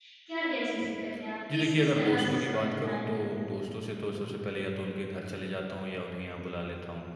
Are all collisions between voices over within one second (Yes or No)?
No